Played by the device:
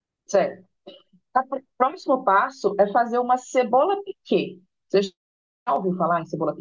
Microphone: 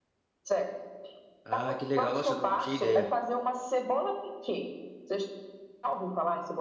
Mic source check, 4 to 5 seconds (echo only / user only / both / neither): echo only